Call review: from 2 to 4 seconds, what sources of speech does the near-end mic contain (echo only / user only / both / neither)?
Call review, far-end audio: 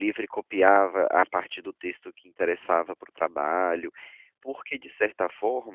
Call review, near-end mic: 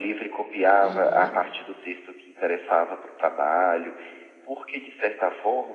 echo only